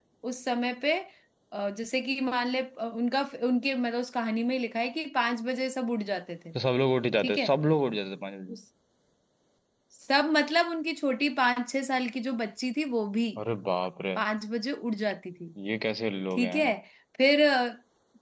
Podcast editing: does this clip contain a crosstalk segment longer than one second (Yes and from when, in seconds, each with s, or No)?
No